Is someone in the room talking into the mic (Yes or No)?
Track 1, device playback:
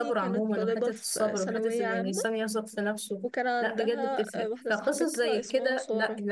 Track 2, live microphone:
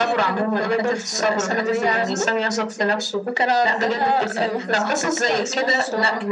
Yes